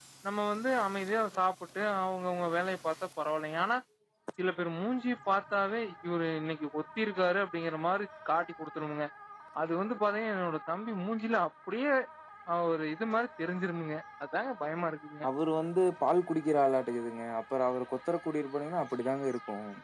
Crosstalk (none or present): none